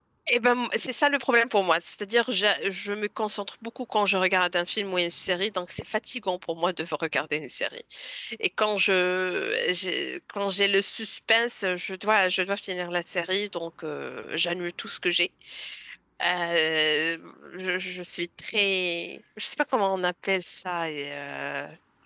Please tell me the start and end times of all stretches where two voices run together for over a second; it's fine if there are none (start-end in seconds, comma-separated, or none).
none